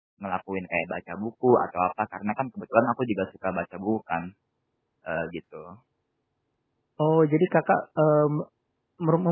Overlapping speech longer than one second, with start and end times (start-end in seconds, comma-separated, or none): none